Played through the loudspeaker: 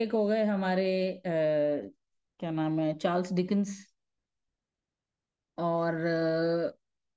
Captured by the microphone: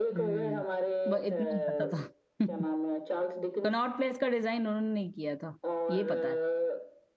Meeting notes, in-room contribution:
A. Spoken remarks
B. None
A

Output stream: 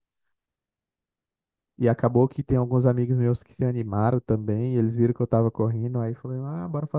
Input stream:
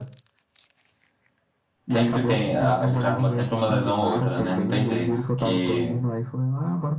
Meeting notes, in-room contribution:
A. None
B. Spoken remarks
B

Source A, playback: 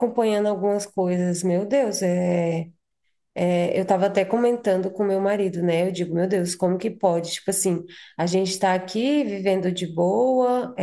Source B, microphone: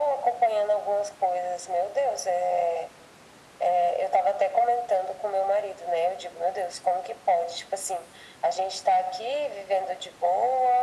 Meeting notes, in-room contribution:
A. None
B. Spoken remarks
A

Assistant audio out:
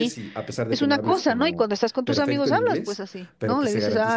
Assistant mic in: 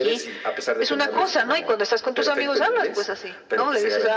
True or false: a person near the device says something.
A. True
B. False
B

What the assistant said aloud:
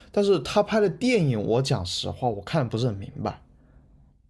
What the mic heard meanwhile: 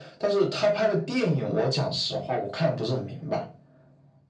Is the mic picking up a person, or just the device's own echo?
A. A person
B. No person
B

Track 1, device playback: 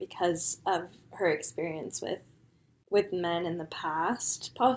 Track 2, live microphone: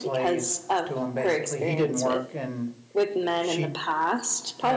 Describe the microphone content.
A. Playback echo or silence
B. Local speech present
B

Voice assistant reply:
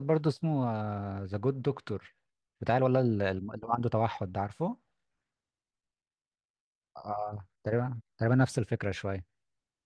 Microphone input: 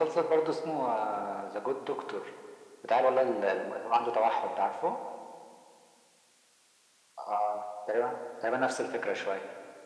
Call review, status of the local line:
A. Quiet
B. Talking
A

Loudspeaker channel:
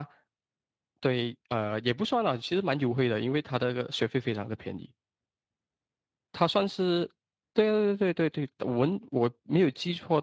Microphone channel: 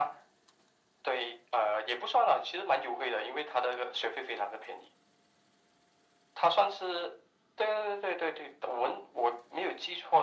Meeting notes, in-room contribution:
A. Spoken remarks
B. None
B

